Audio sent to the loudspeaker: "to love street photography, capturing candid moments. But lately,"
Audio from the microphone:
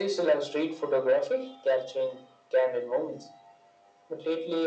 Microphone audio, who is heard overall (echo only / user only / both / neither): echo only